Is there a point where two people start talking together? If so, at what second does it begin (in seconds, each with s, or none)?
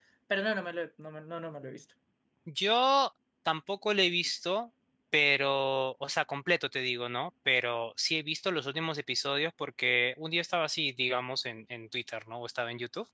none